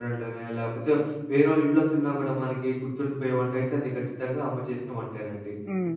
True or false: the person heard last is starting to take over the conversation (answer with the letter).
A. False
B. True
A